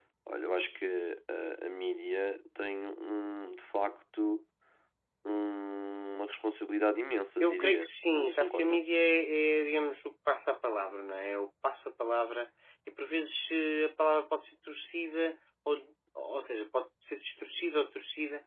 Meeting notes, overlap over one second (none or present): present